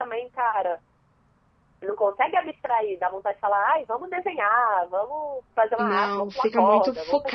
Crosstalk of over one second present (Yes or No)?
Yes